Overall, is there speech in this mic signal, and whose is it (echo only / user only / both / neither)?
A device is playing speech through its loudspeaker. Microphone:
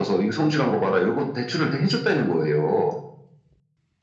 echo only